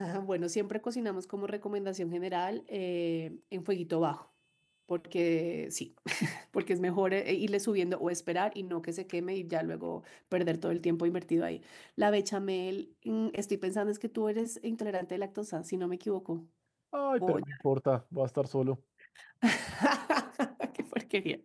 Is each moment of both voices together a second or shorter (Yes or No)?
Yes